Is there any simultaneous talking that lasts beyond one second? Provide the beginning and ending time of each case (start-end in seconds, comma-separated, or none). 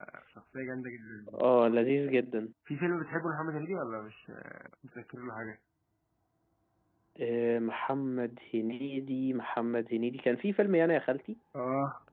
none